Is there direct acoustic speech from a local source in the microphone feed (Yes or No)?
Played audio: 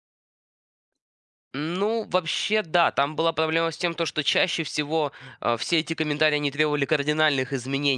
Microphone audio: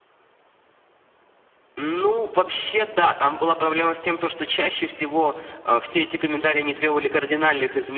No